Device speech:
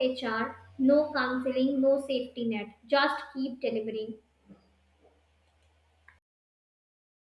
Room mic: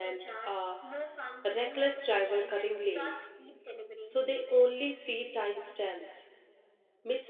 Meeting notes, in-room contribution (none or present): present